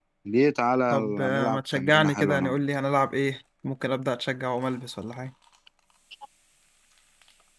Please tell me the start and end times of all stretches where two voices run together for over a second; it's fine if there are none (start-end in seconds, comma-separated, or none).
0.9-2.6